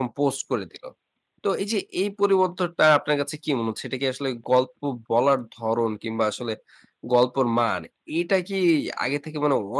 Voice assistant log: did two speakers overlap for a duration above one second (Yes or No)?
No